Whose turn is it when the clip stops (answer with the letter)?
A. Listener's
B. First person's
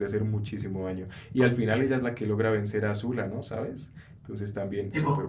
A